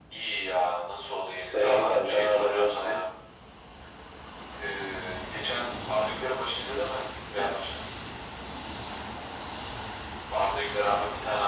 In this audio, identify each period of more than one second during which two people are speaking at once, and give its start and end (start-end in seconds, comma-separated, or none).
1.4-3.0